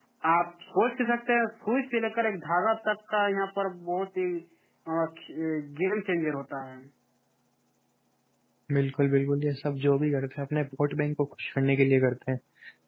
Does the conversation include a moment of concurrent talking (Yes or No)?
No